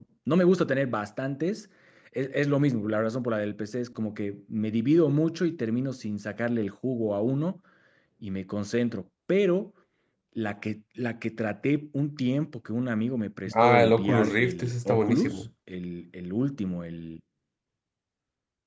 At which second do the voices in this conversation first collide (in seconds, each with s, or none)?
13.5 s